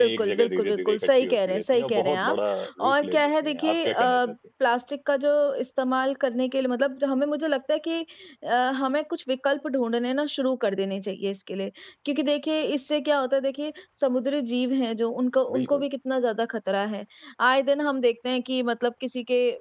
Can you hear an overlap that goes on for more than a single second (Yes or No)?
Yes